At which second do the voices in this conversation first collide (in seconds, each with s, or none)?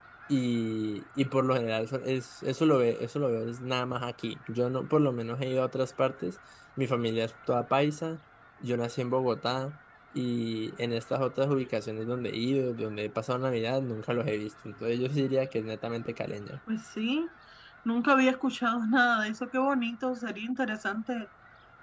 none